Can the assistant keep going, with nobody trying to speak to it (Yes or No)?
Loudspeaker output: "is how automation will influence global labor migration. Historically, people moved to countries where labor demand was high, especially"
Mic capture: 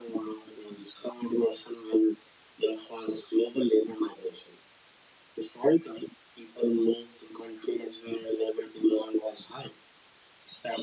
Yes